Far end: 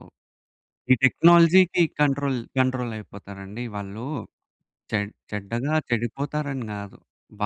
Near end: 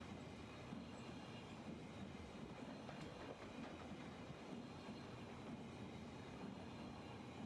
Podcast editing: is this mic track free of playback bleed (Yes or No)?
Yes